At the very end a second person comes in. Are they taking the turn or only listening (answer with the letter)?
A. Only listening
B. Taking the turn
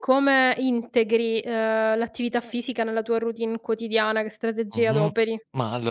B